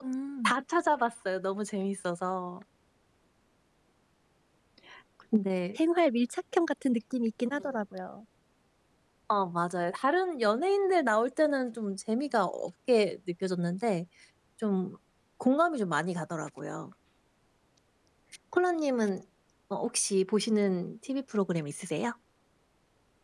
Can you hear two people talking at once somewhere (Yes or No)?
No